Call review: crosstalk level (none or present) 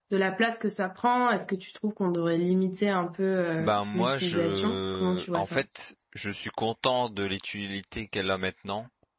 present